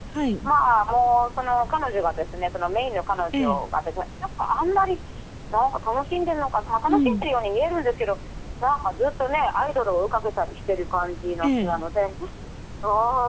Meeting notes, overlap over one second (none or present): none